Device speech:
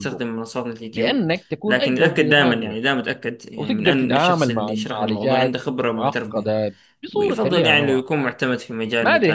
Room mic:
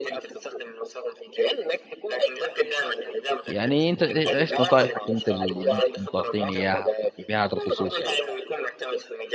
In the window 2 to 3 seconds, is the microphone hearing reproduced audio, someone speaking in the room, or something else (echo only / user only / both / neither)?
echo only